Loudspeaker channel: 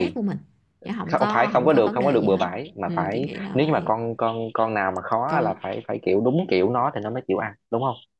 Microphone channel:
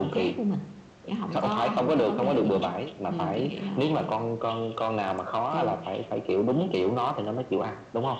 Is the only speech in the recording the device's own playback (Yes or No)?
Yes